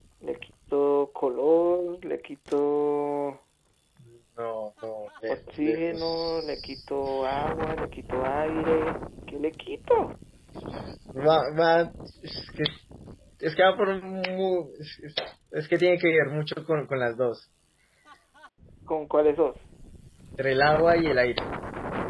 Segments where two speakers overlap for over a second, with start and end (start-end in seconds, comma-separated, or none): 5.3-6.8